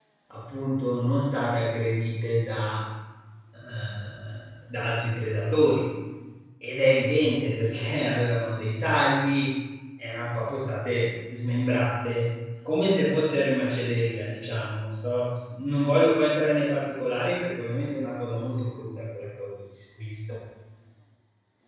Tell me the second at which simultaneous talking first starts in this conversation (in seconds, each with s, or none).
none